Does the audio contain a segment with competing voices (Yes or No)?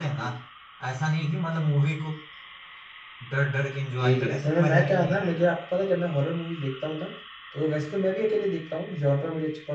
Yes